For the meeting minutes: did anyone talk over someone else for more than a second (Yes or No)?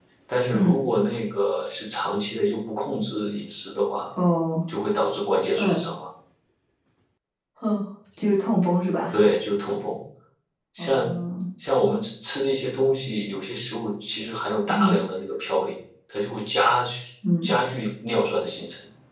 No